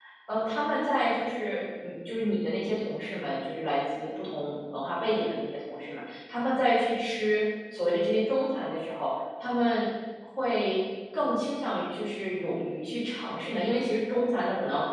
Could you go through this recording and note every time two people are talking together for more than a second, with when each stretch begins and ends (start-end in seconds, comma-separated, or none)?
none